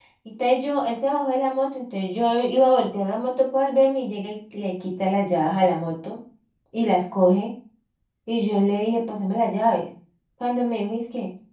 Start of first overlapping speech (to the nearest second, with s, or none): none